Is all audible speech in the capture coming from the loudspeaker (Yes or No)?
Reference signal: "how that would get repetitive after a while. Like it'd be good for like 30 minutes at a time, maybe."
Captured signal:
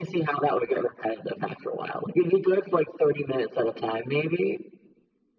Yes